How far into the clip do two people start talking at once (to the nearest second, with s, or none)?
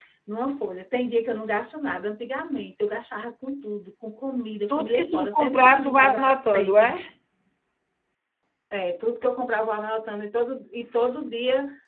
5 s